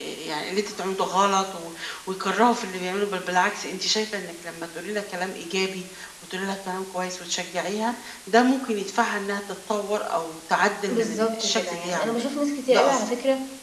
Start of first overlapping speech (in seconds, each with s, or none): 10.9 s